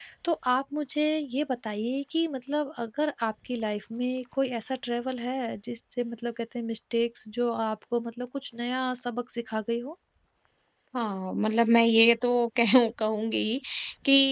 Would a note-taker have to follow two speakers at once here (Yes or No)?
No